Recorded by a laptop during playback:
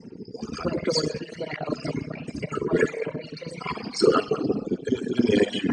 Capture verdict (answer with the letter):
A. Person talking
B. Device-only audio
B